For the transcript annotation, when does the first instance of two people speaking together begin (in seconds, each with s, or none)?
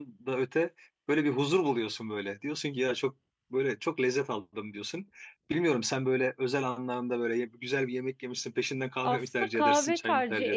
9.0 s